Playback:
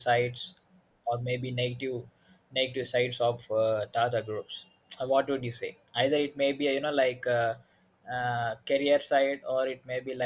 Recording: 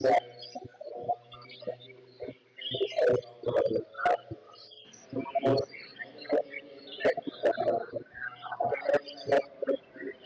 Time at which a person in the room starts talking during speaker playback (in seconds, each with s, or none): none